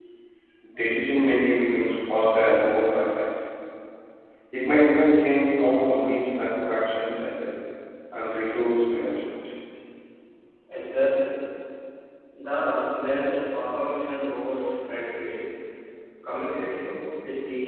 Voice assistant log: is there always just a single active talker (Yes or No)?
Yes